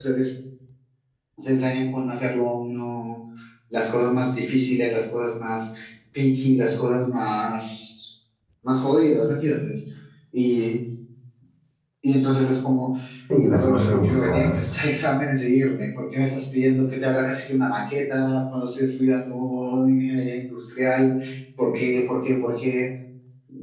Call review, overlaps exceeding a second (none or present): present